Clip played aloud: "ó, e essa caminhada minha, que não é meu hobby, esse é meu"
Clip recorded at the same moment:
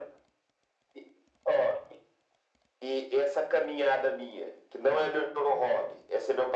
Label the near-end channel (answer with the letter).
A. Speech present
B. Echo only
B